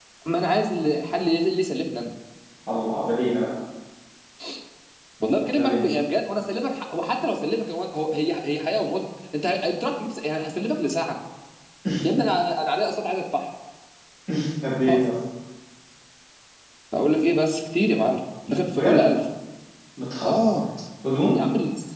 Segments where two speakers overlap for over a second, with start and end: none

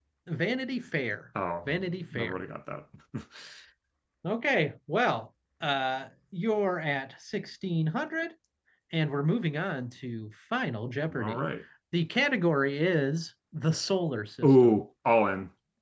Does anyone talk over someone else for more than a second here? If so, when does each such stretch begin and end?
none

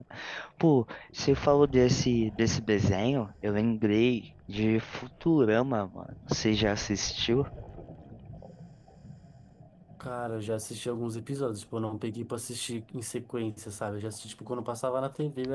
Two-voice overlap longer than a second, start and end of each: none

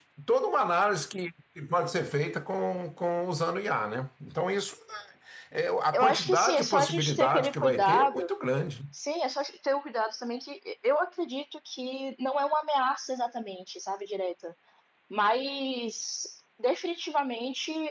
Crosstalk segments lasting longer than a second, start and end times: 5.9-8.3

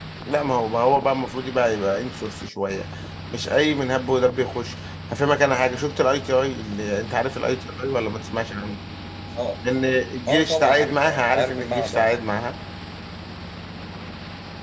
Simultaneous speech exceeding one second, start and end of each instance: 10.3-12.1

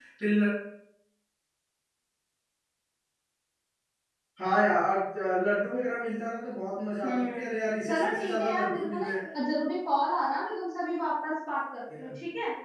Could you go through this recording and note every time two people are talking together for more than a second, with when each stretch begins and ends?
7.8-9.2

